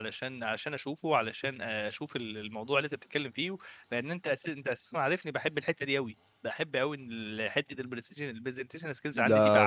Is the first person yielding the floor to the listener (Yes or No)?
Yes